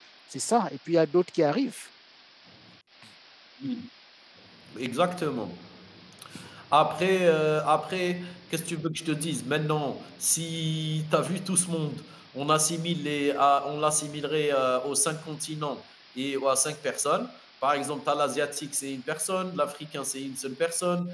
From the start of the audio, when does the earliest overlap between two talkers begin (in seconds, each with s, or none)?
none